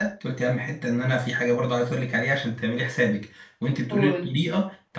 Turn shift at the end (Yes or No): No